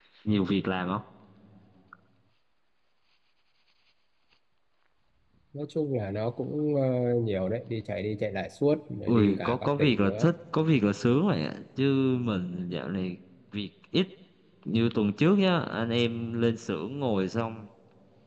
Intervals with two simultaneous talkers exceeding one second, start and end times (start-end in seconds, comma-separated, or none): 9.1-10.3